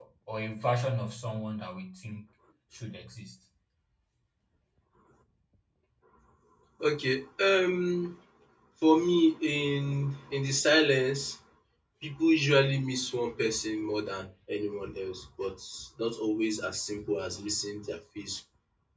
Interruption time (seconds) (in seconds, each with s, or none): none